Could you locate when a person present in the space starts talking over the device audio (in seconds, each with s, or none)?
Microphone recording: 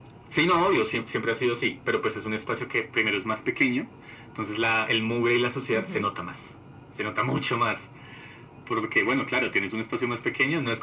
5.7 s